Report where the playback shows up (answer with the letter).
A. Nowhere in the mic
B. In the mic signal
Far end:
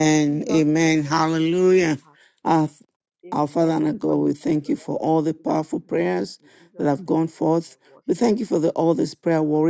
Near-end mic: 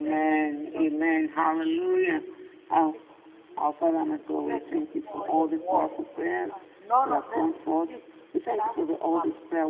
B